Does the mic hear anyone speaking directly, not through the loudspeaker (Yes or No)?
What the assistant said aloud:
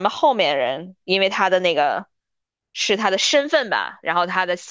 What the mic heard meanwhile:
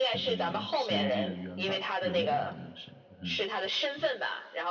Yes